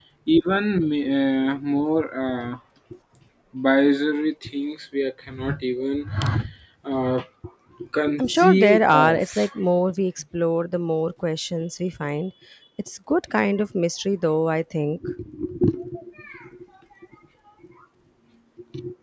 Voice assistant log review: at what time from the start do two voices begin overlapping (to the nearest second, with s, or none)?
8 s